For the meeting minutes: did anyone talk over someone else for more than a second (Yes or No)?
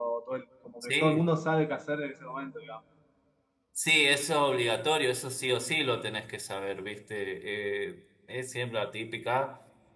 No